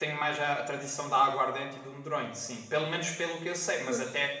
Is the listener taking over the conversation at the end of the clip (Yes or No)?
No